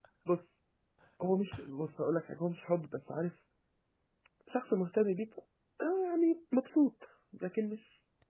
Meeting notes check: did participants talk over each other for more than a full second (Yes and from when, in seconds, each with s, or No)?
No